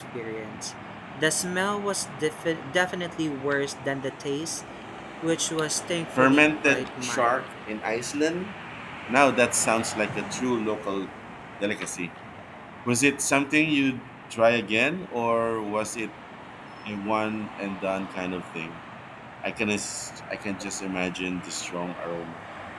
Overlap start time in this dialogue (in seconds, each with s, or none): 6.1 s